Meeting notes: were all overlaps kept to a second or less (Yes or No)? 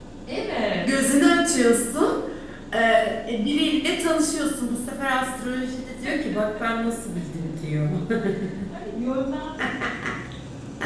Yes